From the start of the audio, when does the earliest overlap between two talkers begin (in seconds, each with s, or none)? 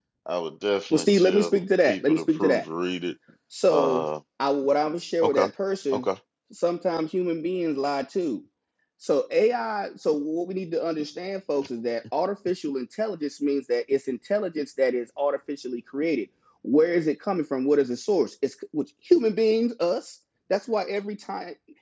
0.9 s